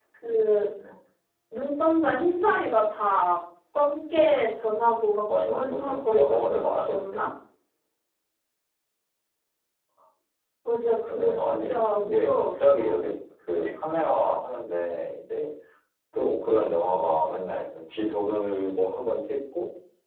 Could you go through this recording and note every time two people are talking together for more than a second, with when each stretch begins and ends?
5.3-7.2, 11.1-13.0

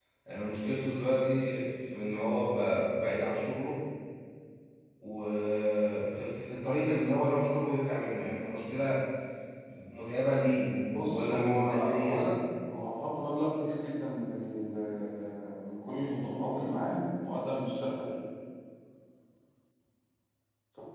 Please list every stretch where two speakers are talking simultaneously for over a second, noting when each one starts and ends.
10.9-12.2

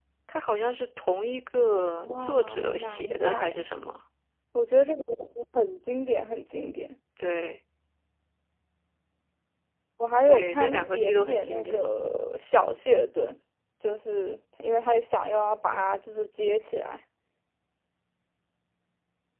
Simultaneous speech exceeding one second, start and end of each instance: 2.1-3.5, 10.3-11.8

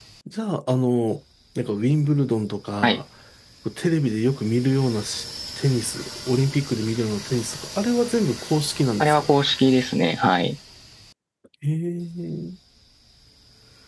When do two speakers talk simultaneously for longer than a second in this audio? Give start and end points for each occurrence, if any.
none

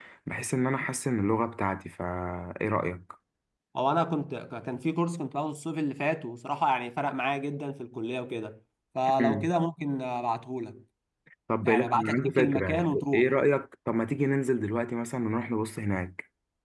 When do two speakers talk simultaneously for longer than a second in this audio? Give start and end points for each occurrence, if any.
11.7-13.3

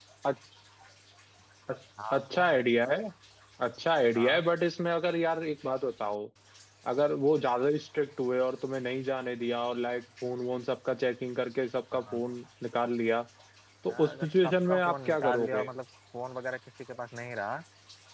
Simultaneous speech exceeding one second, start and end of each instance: 13.9-15.7

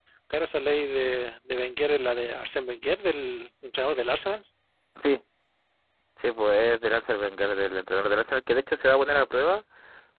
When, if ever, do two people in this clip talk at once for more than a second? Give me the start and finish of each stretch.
none

